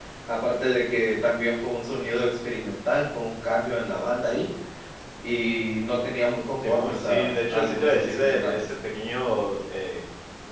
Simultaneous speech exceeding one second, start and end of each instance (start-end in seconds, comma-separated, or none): 6.6-8.7